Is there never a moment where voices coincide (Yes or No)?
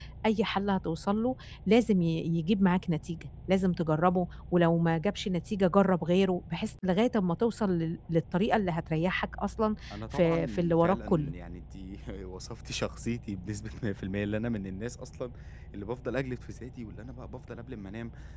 No